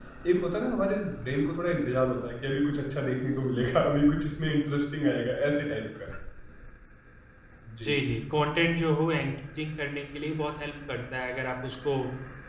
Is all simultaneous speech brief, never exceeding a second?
Yes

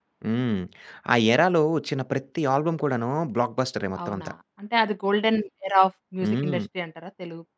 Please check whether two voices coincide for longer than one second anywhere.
No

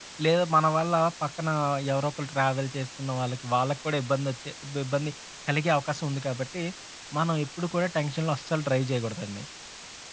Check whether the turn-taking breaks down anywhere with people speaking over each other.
No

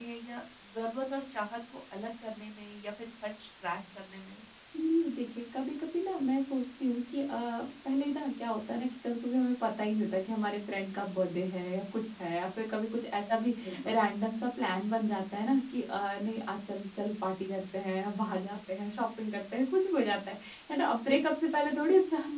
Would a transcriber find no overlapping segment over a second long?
Yes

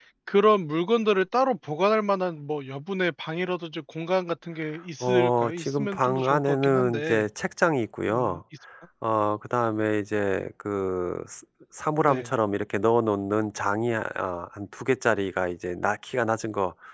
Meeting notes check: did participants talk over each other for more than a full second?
Yes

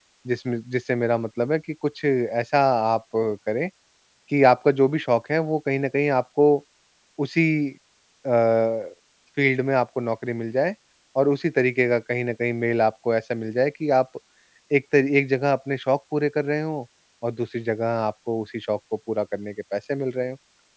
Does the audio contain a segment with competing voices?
No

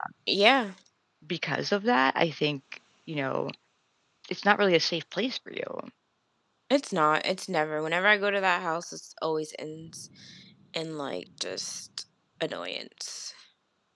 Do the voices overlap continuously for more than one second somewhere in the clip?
No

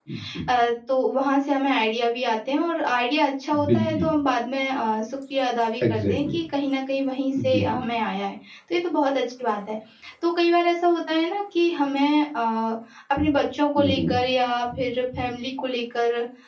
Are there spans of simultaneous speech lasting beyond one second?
No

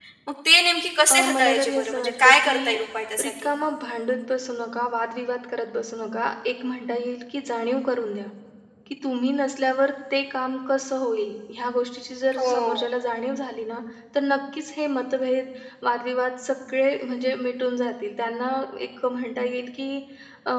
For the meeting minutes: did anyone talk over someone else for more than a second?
Yes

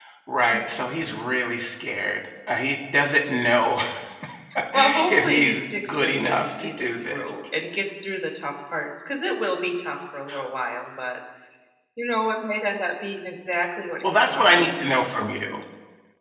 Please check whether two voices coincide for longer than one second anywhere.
Yes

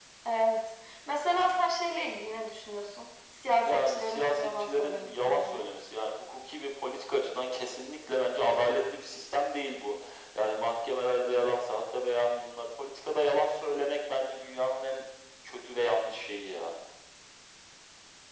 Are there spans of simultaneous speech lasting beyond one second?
Yes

